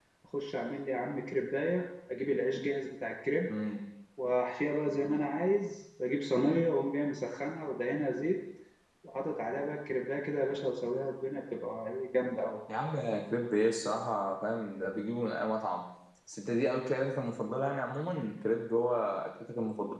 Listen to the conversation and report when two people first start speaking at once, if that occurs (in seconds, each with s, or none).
none